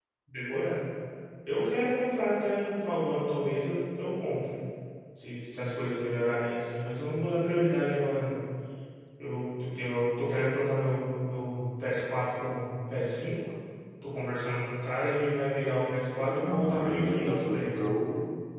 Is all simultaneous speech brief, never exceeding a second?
No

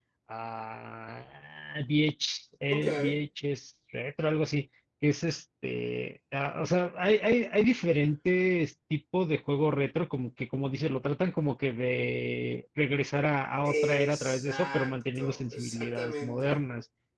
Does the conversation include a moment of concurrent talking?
Yes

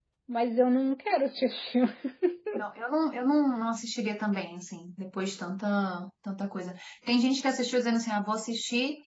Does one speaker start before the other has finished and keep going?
No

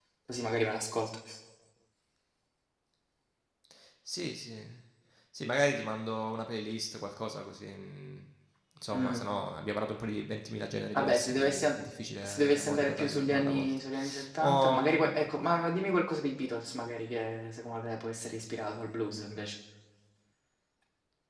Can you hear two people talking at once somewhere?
Yes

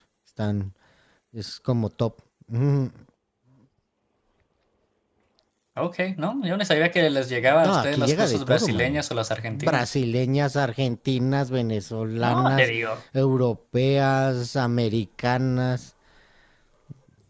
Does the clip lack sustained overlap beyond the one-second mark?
No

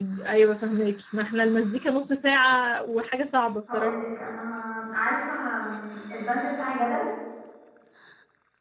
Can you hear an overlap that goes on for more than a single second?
No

